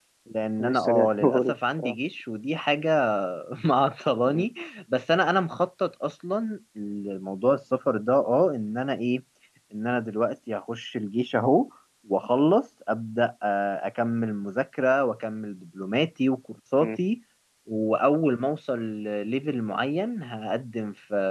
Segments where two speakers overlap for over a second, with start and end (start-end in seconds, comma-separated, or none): 0.6-1.9